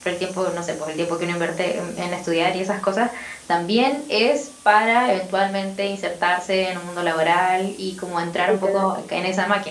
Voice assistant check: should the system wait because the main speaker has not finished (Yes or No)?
Yes